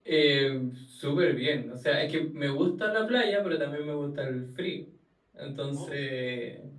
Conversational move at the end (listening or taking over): listening